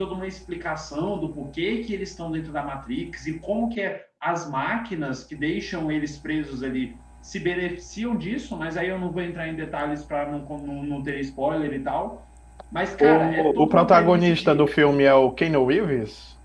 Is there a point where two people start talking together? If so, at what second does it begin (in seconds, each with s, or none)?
13.1 s